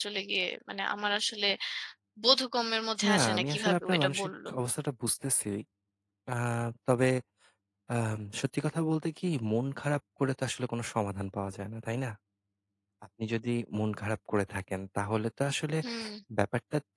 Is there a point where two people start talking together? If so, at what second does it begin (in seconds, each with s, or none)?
3.1 s